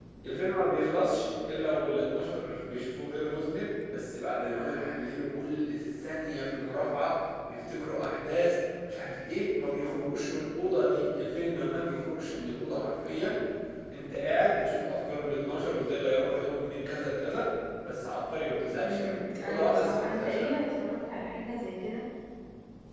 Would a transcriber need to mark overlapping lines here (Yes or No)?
Yes